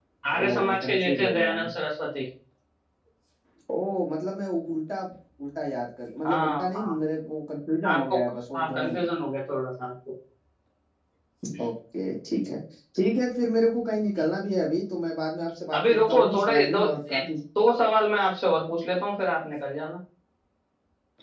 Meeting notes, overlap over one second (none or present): present